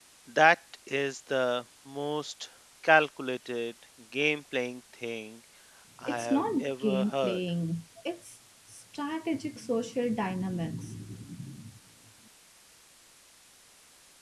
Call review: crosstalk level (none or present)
present